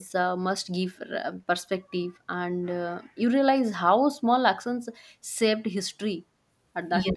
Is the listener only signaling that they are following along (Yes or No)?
No